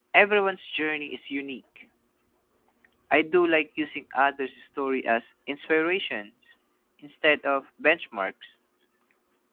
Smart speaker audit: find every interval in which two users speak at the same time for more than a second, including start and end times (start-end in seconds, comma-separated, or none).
none